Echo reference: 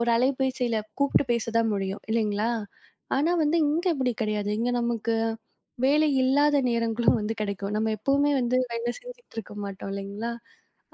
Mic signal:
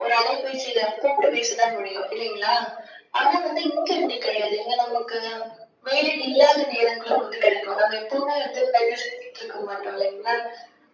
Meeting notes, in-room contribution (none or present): none